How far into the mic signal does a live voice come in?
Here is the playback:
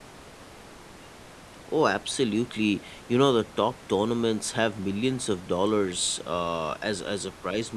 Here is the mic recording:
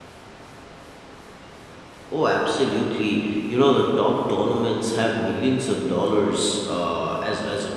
none

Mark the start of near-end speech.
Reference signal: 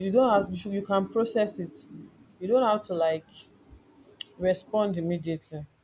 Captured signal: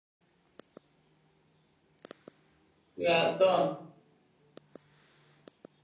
3.0 s

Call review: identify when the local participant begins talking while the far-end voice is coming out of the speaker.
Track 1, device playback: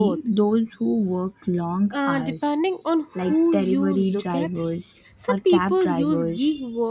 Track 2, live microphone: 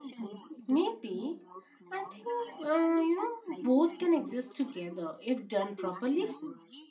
0.6 s

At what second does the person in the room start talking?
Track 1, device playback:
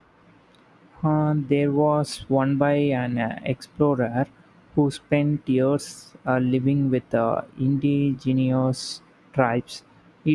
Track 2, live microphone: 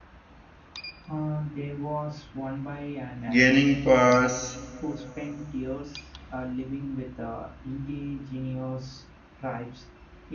3.3 s

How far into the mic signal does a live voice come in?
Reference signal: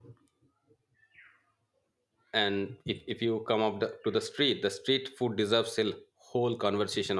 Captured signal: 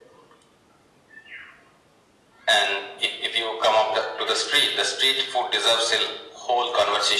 none

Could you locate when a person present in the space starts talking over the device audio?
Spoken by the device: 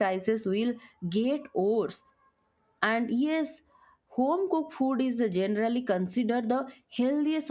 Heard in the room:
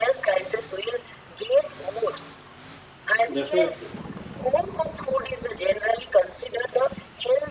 3.3 s

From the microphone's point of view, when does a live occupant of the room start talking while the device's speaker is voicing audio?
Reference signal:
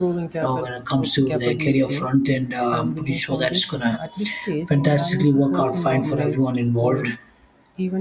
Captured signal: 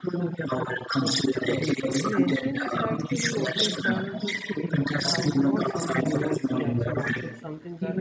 1.4 s

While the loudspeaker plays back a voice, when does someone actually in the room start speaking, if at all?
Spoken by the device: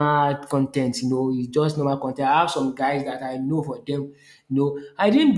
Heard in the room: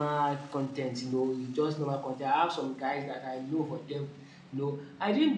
none

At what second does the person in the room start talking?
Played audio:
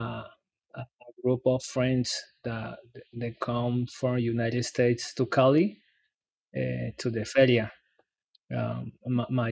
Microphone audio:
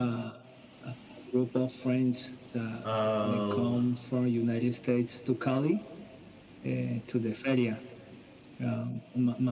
2.8 s

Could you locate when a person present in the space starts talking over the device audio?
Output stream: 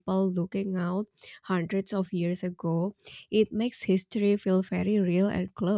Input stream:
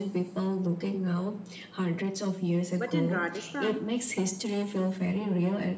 2.8 s

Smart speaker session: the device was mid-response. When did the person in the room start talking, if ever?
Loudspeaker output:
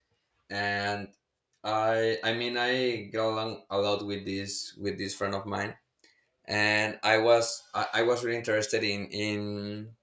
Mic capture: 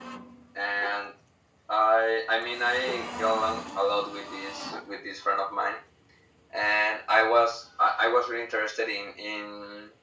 none

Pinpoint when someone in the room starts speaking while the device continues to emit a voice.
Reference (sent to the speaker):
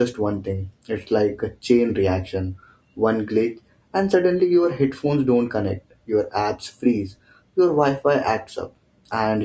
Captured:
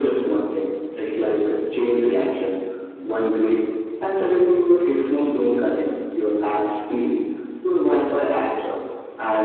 none

